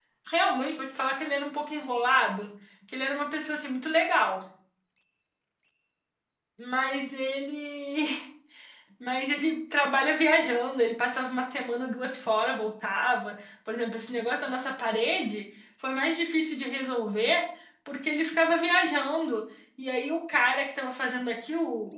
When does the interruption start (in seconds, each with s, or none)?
none